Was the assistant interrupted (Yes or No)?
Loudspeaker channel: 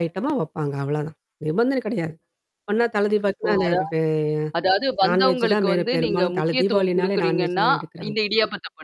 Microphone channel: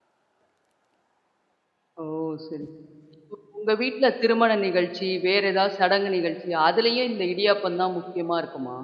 Yes